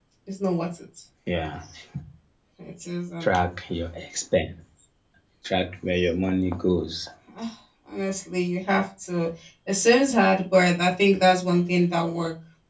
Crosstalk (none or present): none